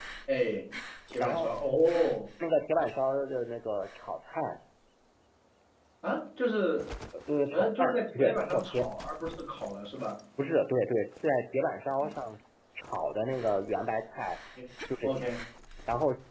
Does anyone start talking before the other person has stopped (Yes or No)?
Yes